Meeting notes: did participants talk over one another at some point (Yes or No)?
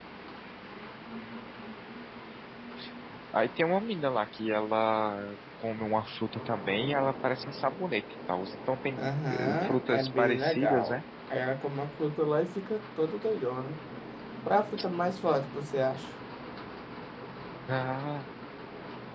Yes